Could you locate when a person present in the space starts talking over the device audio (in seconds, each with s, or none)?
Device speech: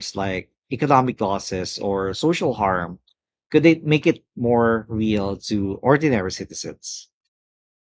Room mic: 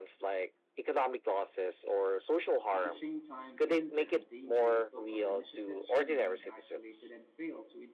2.7 s